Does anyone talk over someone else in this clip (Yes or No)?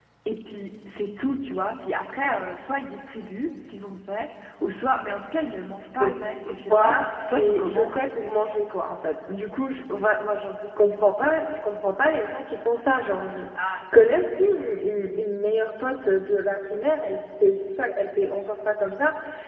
Yes